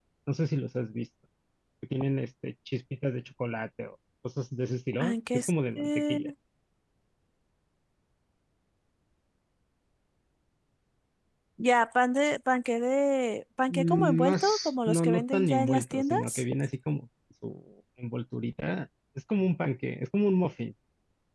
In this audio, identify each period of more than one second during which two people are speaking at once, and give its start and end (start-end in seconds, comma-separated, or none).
5.0-6.2, 13.7-16.4